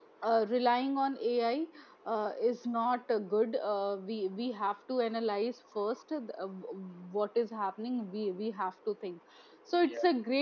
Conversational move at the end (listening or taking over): listening